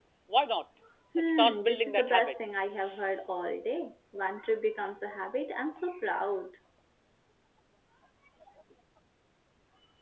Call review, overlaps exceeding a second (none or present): present